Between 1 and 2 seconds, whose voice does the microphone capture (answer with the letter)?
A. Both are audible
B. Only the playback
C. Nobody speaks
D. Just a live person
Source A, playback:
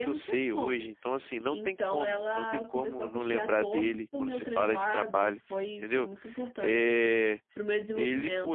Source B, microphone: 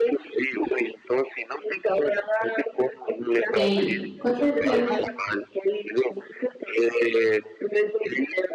B